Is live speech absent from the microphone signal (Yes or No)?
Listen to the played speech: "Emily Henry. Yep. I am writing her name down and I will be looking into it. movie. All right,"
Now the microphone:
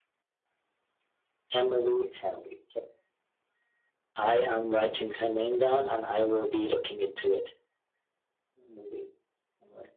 Yes